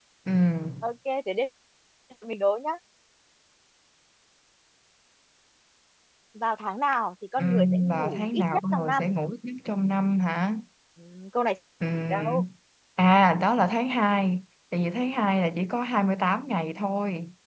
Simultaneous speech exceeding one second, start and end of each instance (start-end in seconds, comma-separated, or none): 7.4-9.1